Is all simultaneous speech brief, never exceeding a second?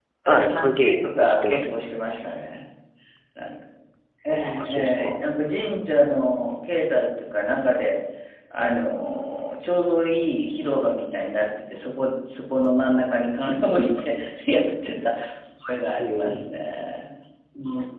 No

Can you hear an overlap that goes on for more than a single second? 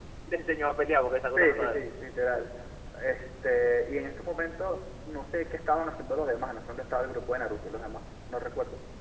No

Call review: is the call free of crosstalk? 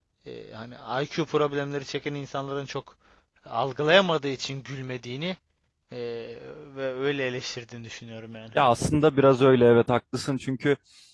Yes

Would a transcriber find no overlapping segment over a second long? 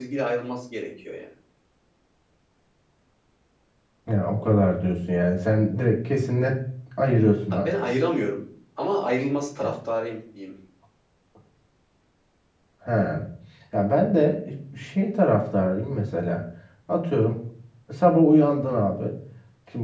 Yes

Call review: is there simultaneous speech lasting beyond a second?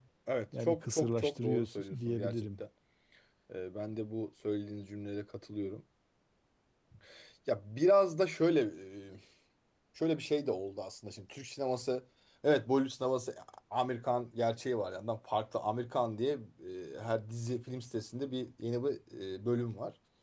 Yes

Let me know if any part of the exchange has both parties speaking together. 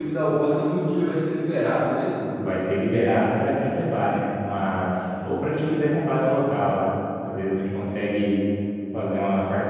No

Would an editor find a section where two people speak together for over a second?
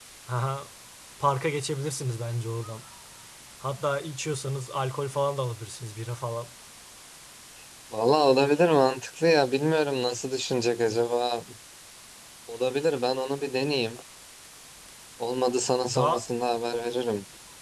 No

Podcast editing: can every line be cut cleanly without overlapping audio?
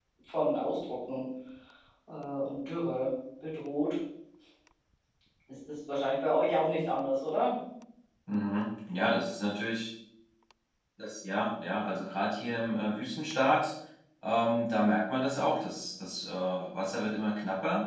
Yes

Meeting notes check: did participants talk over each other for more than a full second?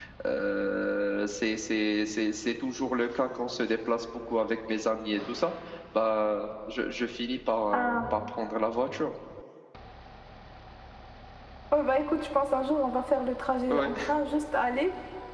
No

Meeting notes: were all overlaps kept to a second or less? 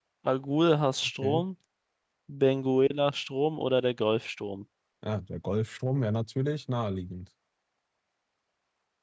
Yes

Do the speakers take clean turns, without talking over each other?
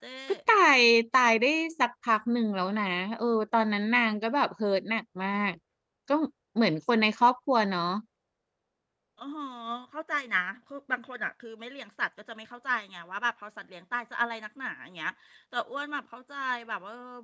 Yes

